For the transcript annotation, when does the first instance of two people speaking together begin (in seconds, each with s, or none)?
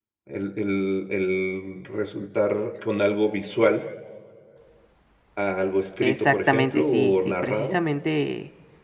6.0 s